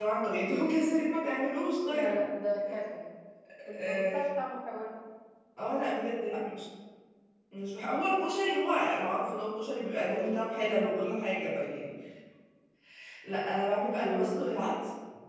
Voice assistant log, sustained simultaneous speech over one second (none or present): none